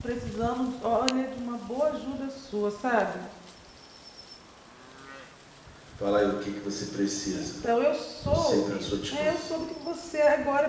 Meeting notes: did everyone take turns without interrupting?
No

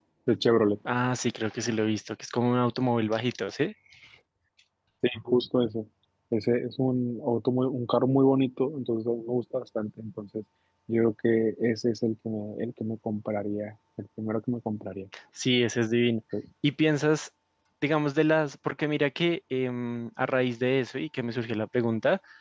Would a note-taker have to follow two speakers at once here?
No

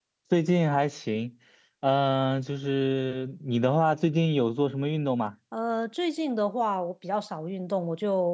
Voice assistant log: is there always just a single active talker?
Yes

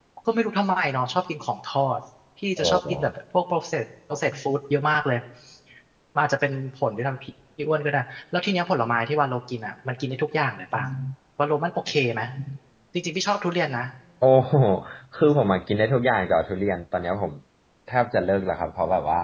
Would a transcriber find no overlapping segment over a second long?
Yes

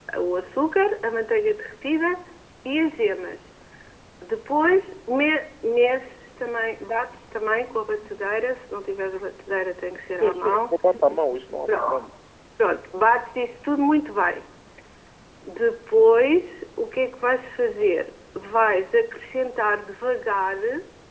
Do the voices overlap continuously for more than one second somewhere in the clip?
No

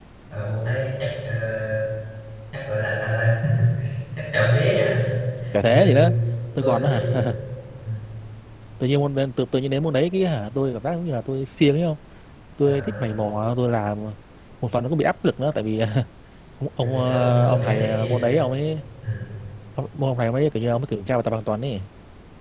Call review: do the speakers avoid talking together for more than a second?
No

